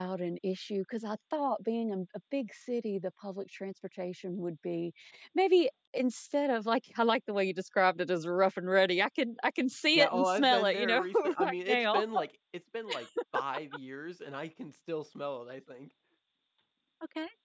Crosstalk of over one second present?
Yes, from 9.9 s

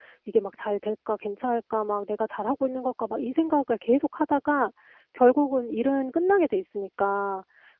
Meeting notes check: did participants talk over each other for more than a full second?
No

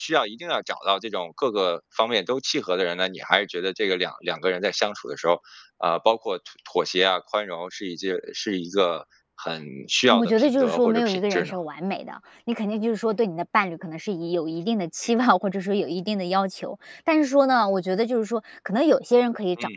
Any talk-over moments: Yes, from 10.1 s

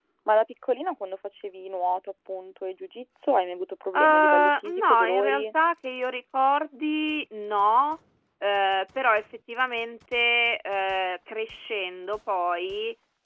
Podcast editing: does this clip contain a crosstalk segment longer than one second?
Yes, from 3.9 s

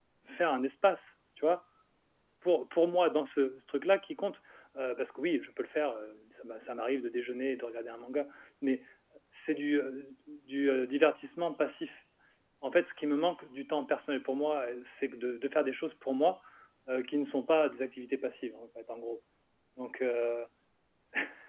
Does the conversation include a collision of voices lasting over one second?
No

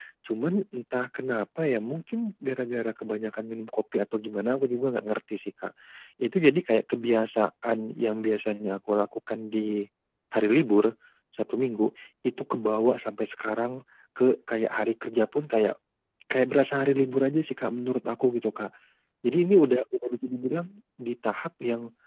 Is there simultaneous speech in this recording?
No

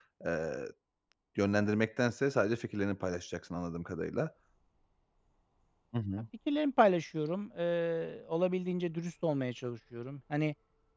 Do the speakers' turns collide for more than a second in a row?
No

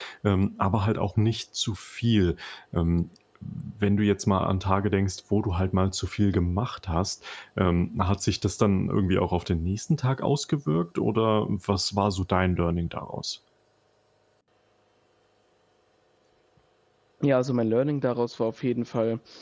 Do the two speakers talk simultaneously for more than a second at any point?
No

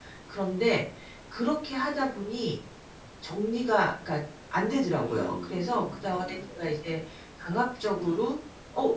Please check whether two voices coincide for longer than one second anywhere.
Yes, from 5.0 s

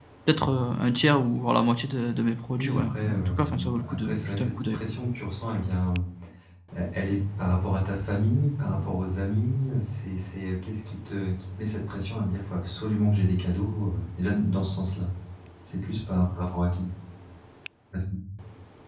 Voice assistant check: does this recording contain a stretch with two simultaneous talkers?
Yes, from 2.6 s

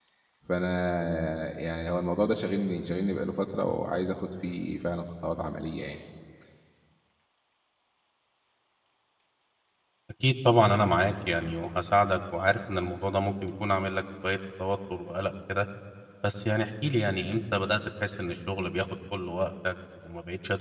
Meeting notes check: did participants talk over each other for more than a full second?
No

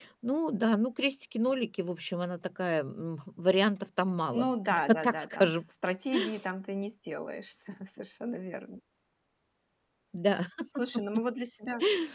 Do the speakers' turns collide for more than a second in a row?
Yes, from 4.3 s

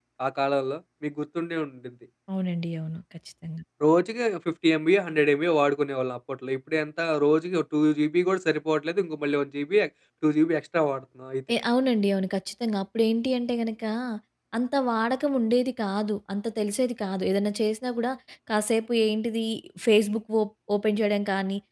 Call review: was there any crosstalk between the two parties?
No

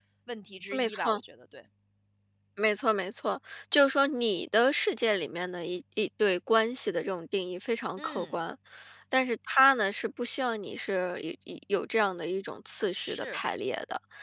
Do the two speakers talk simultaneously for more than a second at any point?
No

